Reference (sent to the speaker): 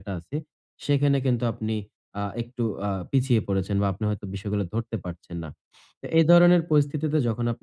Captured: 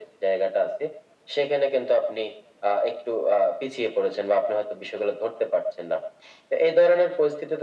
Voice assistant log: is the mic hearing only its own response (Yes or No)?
Yes